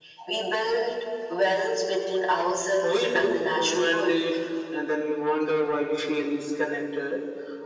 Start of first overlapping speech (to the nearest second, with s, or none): 3 s